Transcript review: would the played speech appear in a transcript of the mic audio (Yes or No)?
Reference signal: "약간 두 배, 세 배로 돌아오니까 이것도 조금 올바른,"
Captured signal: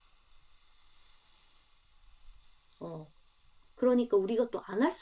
No